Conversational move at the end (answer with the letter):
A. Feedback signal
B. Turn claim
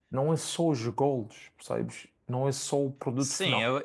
B